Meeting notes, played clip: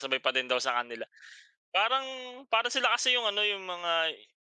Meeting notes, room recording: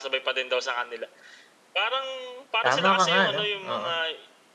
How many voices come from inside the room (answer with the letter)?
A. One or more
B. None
A